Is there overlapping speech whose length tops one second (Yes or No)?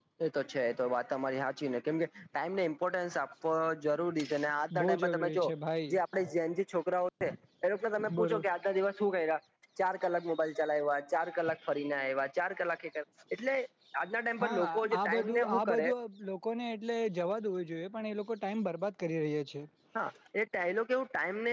Yes